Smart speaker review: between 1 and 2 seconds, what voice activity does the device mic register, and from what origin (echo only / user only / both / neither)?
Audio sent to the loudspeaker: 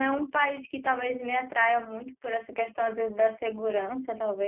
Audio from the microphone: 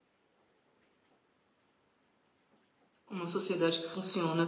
neither